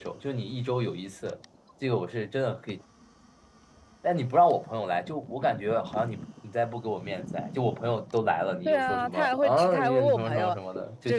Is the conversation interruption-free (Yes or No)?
No